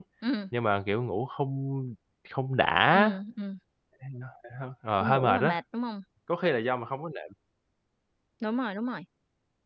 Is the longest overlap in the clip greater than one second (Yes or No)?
No